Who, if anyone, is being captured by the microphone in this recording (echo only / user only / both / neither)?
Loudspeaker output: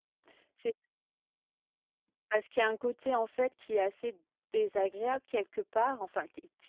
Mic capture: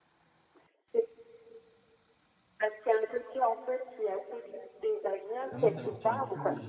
both